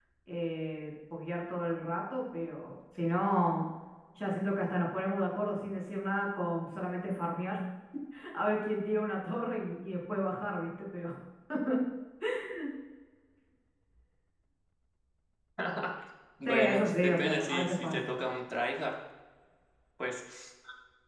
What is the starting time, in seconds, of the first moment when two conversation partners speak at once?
16.4 s

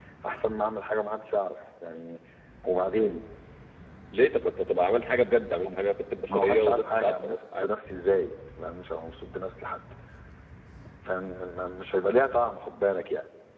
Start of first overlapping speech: 6.3 s

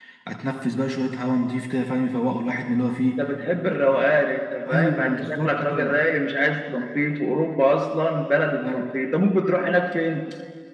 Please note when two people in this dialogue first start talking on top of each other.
4.7 s

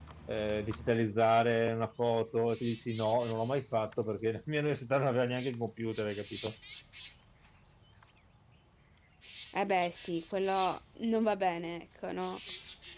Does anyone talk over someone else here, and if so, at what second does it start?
none

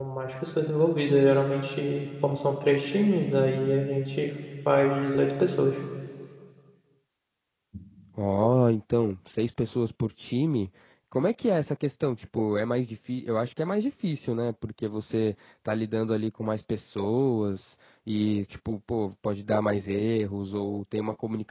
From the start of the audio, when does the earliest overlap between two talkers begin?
none

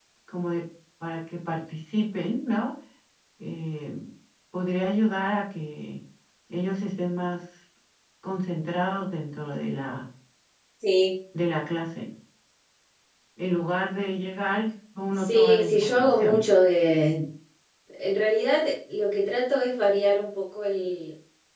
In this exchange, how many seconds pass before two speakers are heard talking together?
15.1 s

